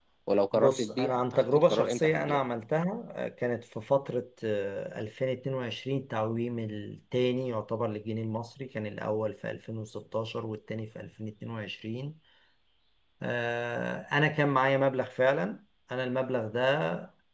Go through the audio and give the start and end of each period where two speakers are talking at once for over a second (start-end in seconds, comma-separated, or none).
0.5-2.4